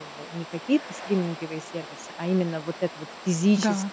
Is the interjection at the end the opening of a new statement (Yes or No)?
No